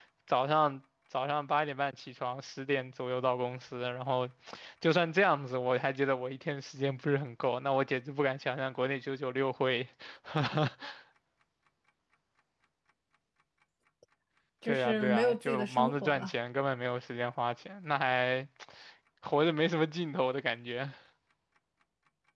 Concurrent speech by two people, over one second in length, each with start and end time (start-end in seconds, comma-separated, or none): 14.6-16.3